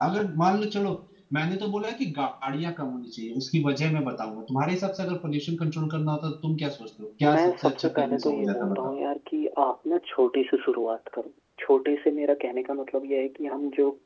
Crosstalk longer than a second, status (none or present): present